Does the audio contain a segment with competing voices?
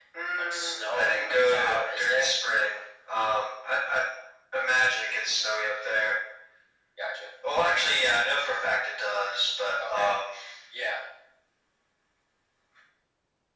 Yes, from 0.5 s

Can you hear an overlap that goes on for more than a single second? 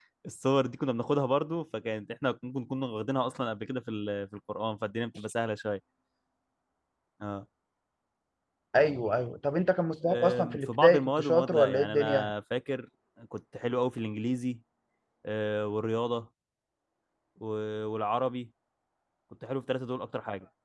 Yes, from 10.0 s

